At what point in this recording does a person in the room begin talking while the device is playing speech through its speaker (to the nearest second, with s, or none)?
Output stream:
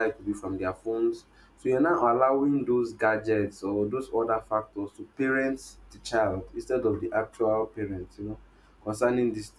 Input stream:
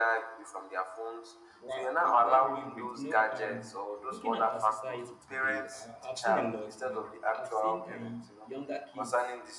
2 s